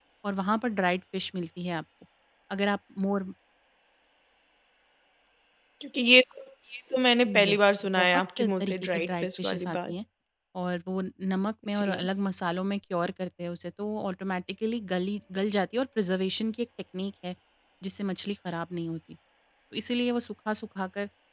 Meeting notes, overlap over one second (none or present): present